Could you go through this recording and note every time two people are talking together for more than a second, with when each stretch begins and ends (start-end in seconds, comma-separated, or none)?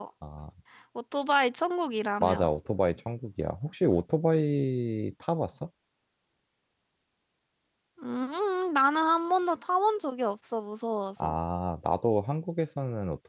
none